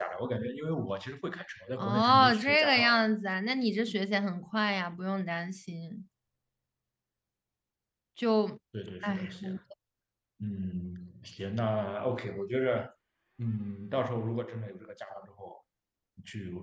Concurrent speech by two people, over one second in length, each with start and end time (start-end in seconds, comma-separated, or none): 1.8-3.0